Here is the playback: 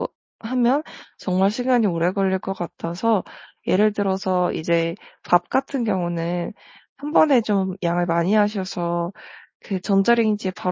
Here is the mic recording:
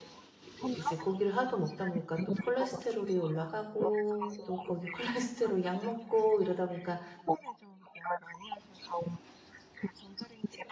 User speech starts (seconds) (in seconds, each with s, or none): 0.4 s